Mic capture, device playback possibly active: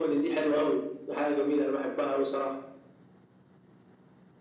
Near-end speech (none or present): none